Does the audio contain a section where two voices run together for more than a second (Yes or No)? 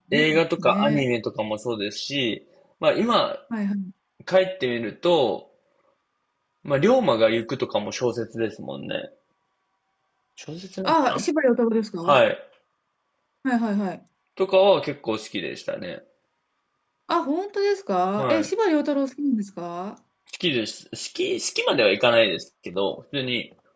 No